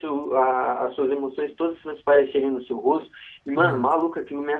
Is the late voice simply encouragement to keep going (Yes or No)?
Yes